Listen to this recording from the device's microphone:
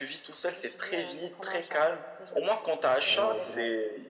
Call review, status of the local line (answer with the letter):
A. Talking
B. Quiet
A